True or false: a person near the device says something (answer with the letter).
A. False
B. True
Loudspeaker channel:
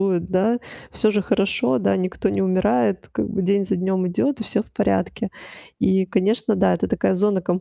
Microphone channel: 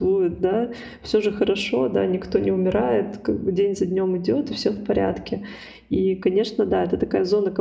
A